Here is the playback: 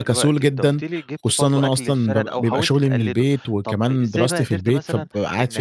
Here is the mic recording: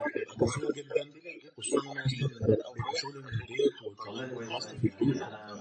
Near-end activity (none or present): present